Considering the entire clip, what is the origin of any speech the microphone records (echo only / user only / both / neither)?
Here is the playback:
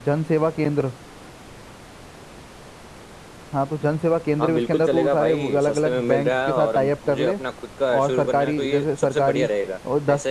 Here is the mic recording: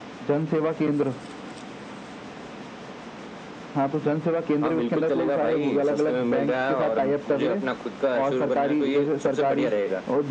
echo only